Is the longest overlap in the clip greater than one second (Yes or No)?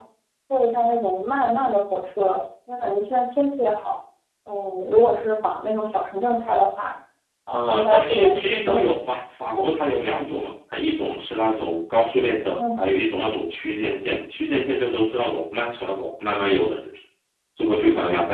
Yes